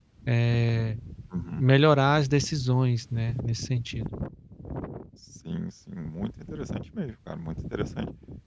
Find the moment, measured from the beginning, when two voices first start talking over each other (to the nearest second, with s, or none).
none